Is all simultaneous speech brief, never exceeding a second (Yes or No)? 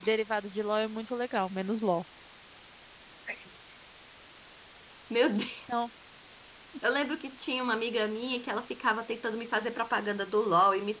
Yes